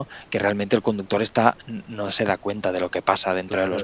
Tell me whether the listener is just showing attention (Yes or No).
No